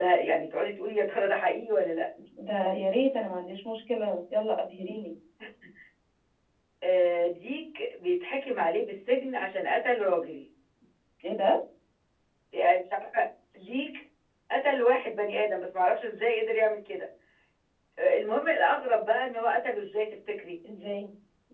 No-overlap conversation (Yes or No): Yes